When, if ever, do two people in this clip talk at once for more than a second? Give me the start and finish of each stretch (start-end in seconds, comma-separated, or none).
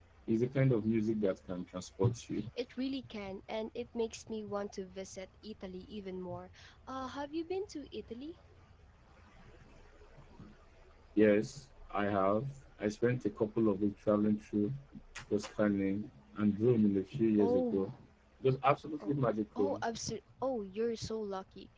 none